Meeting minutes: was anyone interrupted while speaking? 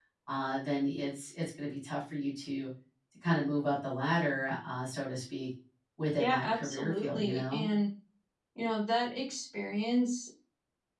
Yes, from 6.2 s

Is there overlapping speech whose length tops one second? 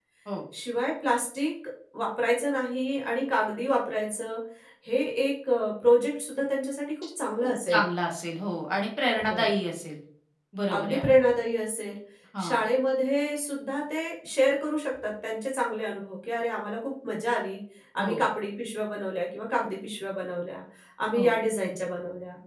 No

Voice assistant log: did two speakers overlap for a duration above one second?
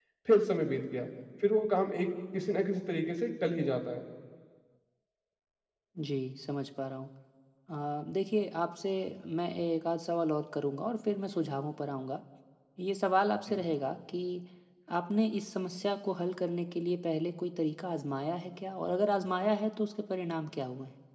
No

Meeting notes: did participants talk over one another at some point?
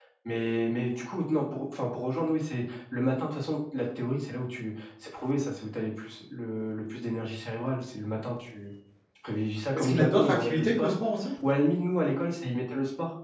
Yes, from 9.7 s

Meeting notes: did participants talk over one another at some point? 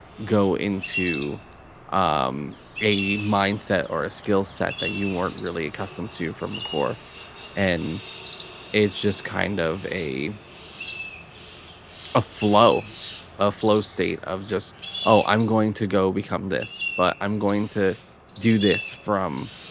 No

